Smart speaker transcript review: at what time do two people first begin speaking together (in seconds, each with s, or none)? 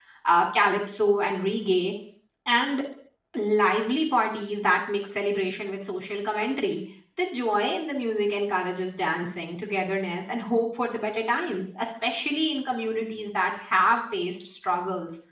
none